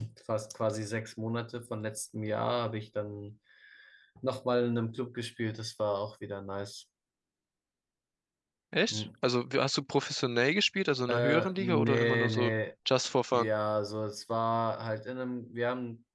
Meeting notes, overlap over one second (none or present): present